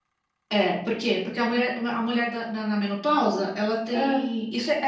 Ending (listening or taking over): listening